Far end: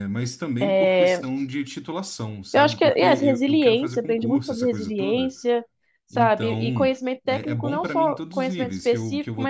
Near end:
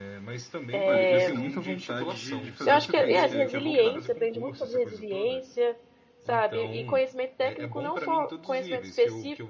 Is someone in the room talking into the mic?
Yes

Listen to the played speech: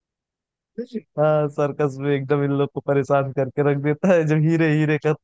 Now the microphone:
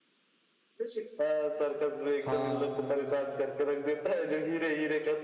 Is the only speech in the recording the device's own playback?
No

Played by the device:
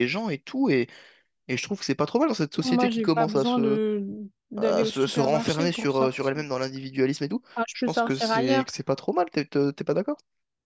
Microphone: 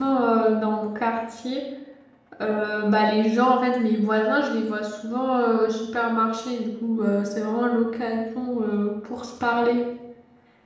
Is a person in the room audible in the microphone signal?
Yes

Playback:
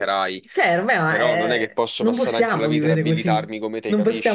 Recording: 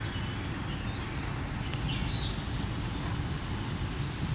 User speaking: No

